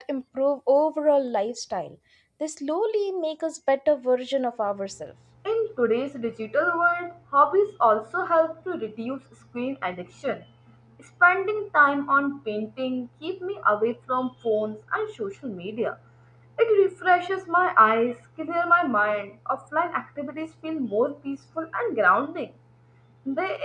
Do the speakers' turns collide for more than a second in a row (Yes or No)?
No